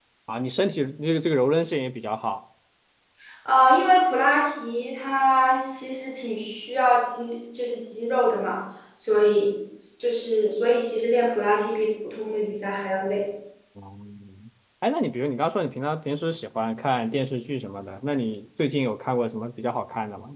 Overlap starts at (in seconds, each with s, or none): none